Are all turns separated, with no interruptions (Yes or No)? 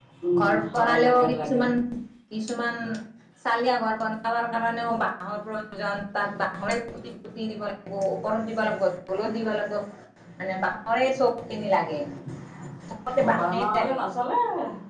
No